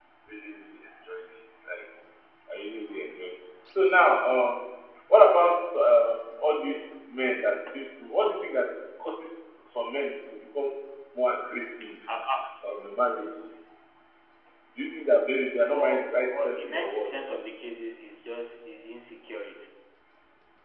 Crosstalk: present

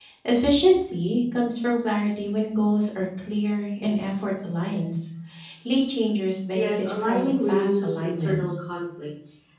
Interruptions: present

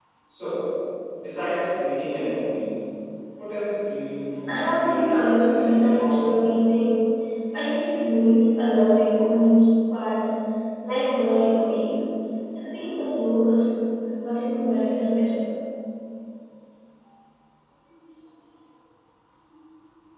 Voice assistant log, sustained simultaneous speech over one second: present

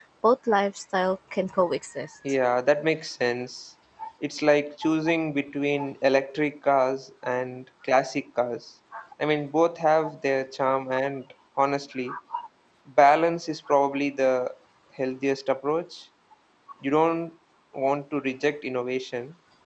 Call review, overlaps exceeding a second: none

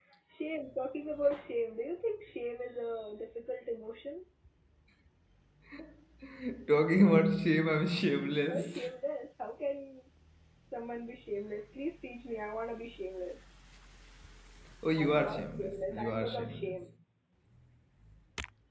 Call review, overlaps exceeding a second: present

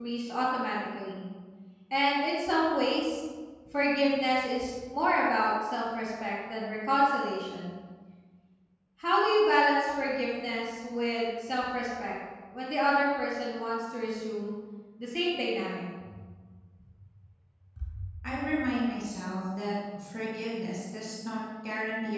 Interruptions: none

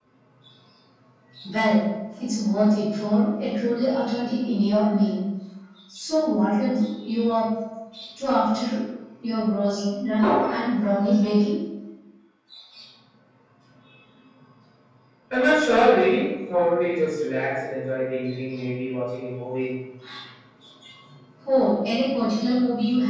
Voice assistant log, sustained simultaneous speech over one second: none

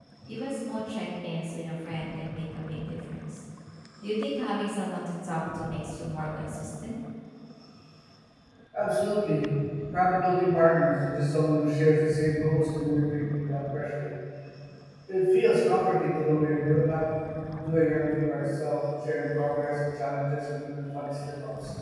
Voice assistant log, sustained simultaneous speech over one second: none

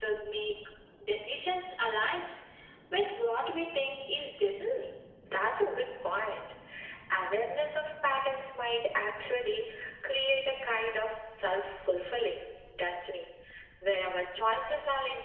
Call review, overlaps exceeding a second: none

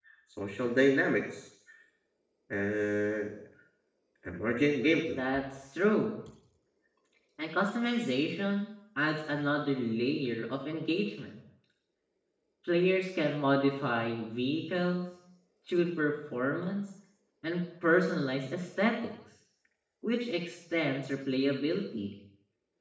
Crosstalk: none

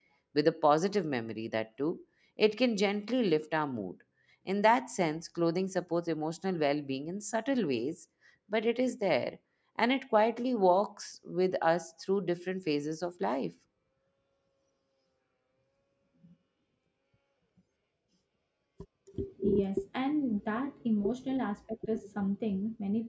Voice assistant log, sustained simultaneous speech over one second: none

